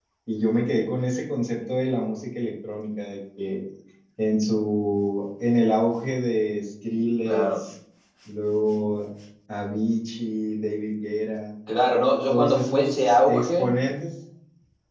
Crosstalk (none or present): present